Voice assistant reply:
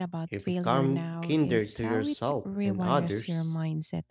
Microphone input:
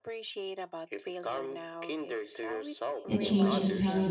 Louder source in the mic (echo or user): user